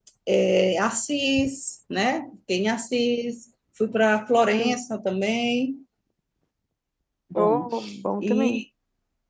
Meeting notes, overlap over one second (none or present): none